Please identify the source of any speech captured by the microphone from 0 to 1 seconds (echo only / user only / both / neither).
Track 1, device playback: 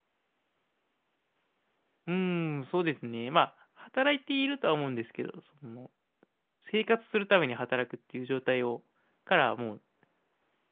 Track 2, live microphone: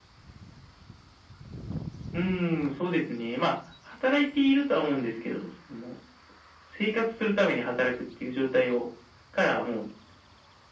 neither